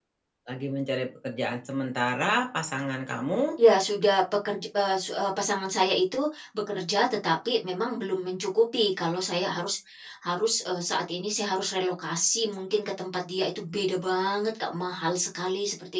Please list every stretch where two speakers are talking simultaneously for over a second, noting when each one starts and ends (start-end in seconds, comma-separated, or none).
none